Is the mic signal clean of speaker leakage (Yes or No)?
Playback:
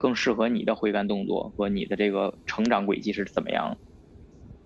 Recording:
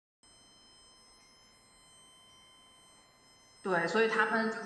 Yes